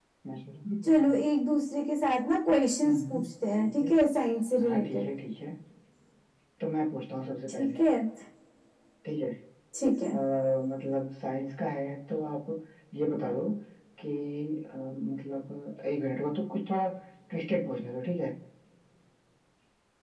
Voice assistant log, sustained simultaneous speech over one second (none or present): none